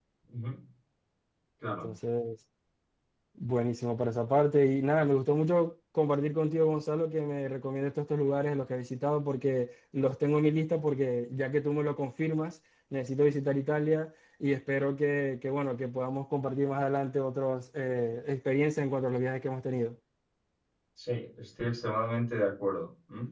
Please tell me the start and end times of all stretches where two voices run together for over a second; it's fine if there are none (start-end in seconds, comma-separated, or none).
none